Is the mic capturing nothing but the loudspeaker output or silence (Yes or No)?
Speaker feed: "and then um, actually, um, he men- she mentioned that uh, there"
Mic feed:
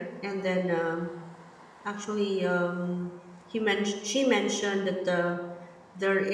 Yes